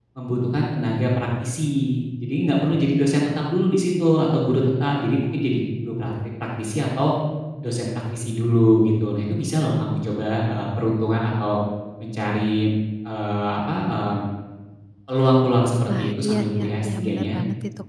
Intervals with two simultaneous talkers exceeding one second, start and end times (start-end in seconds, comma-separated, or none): 15.9-17.4